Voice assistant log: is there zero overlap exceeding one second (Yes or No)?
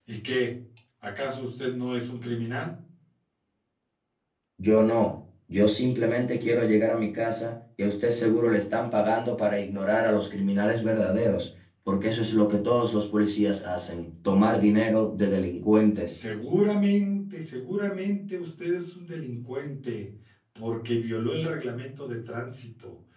Yes